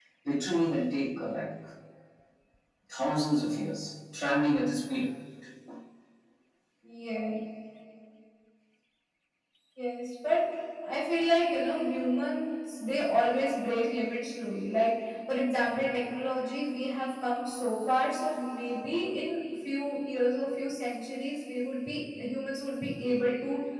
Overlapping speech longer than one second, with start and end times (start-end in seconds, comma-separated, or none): none